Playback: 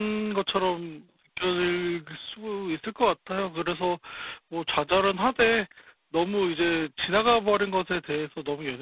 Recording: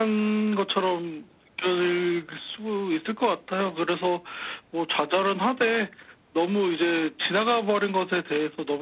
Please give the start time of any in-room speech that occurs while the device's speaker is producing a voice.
none

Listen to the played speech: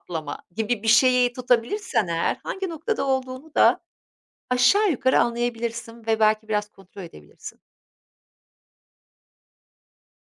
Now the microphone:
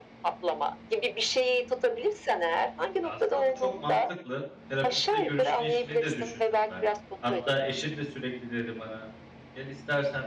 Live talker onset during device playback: 3.0 s

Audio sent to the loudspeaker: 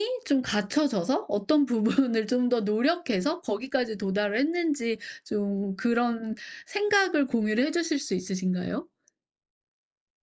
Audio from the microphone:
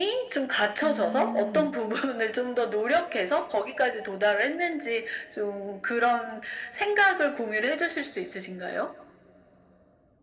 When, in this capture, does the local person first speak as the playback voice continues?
0.8 s

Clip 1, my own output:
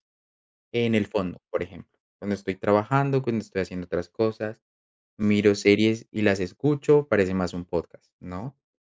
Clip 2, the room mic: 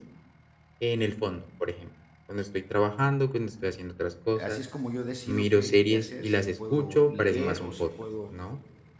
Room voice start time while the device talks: 4.4 s

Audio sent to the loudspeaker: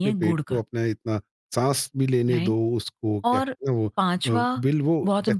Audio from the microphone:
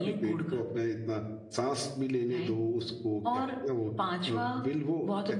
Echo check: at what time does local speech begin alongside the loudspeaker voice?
none

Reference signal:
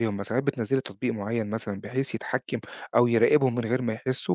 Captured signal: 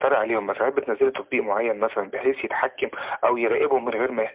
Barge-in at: none

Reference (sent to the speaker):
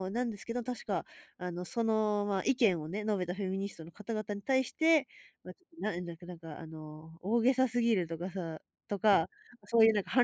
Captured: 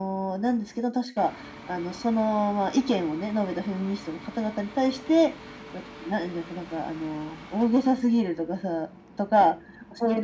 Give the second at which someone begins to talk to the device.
none

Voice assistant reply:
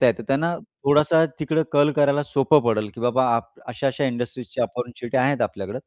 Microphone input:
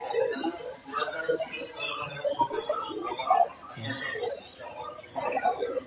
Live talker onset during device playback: 3.8 s

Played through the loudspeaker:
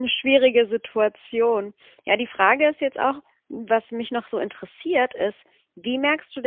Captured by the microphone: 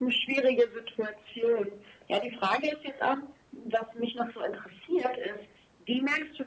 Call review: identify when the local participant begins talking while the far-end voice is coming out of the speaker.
none

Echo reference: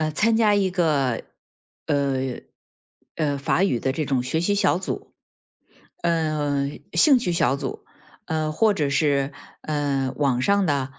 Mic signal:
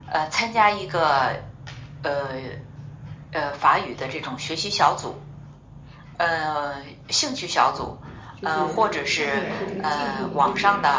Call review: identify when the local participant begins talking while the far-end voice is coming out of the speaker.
8.3 s

